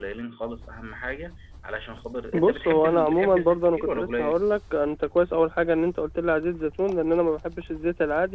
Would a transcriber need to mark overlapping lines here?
Yes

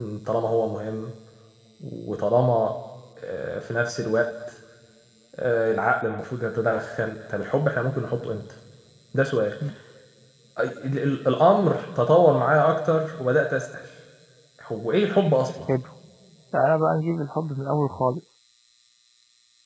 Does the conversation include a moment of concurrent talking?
No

